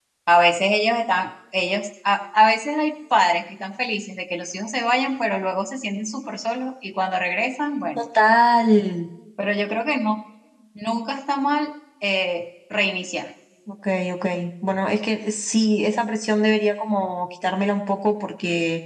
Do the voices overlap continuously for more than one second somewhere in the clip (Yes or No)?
No